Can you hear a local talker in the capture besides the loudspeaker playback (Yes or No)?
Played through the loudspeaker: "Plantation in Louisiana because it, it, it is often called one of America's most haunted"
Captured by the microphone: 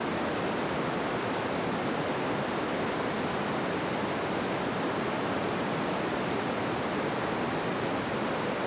No